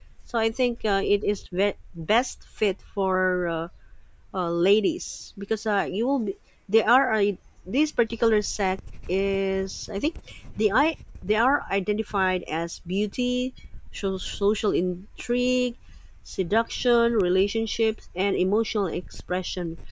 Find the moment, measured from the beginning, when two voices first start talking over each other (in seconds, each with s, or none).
none